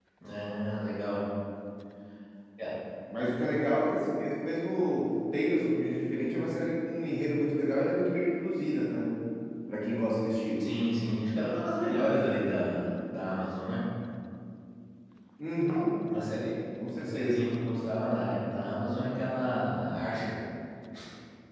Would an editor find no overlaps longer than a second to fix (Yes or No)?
Yes